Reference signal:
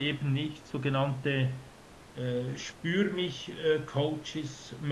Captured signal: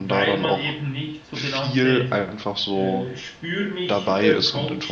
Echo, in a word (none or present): present